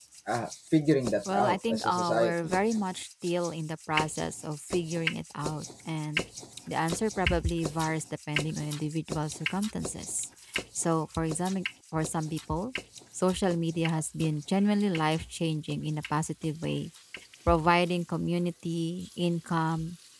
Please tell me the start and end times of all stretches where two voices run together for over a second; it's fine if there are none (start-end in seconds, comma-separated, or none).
1.3-2.5